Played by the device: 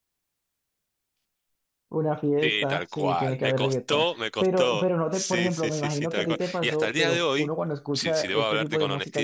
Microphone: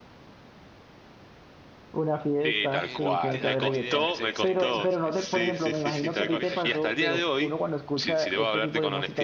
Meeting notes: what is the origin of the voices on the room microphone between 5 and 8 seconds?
both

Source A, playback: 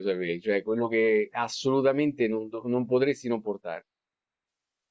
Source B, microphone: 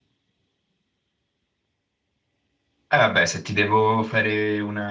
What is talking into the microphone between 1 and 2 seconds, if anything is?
neither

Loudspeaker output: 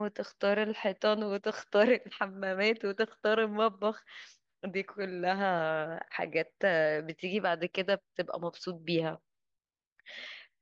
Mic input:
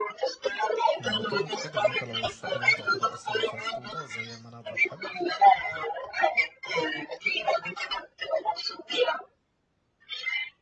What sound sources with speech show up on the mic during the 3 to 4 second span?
both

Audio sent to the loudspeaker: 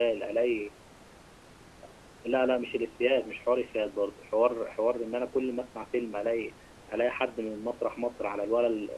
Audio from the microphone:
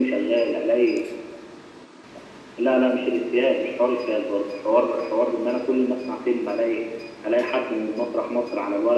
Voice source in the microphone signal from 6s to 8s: echo only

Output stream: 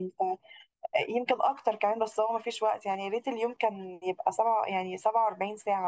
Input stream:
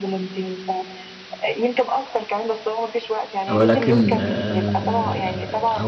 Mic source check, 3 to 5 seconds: both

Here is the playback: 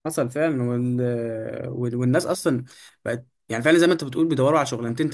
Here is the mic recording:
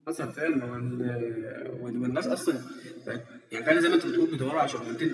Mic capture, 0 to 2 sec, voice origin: echo only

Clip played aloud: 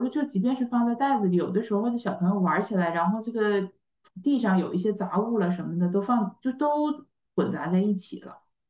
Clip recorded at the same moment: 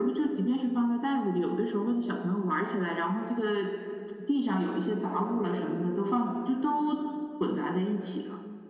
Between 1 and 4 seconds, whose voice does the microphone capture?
echo only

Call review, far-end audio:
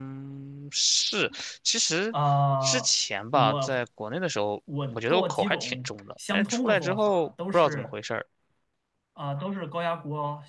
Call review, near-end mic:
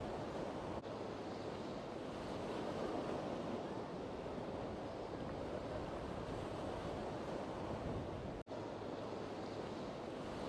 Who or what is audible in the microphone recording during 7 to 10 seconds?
neither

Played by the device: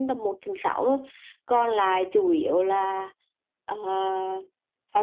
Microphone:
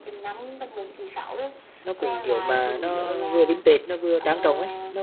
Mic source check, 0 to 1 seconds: echo only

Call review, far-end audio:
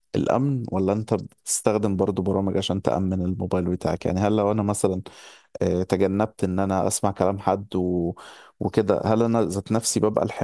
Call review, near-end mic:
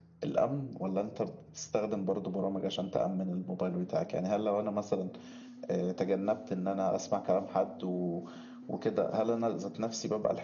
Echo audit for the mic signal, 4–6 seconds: echo only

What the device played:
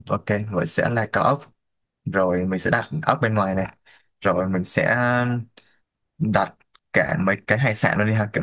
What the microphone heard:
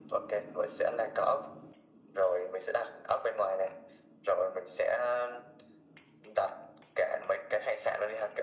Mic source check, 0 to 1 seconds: echo only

